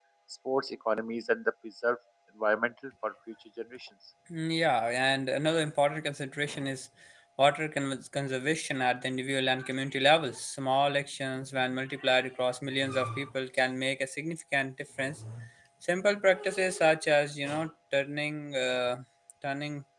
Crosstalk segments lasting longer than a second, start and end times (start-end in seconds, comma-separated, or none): none